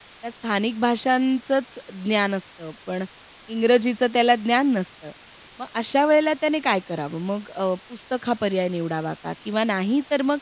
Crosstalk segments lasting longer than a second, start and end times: none

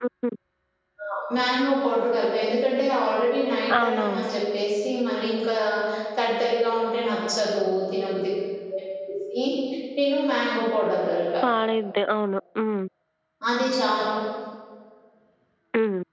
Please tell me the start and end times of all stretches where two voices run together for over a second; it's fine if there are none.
none

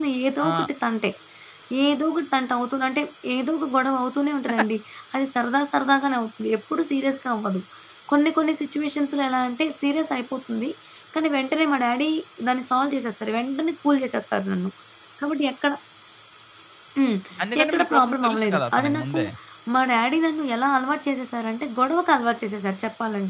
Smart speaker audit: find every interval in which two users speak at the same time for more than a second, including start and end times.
17.6-19.2

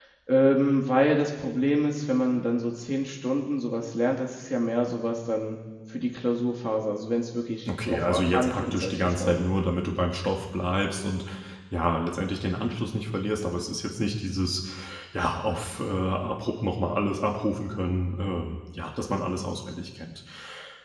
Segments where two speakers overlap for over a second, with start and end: 7.7-9.4

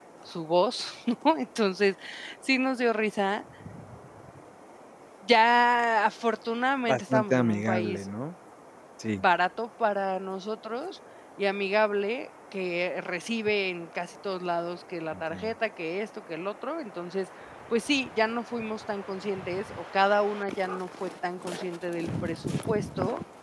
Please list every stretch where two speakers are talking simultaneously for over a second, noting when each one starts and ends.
6.9-8.1

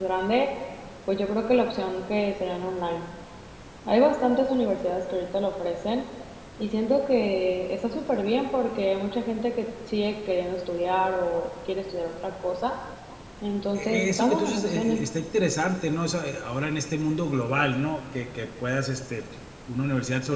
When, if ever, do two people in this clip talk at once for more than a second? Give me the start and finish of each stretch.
13.8-15.0

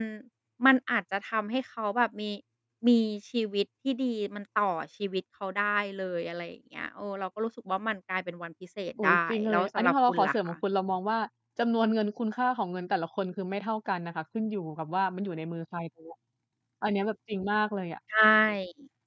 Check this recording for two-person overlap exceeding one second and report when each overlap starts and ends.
9.0-10.6

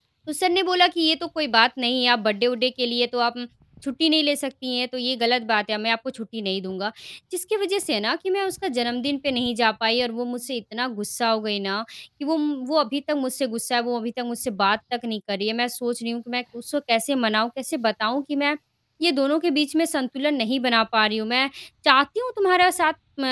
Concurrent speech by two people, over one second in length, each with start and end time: none

